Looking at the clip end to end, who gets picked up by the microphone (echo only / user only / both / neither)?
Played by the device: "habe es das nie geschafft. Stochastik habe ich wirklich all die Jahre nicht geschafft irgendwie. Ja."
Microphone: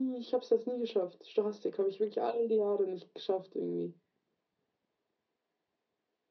echo only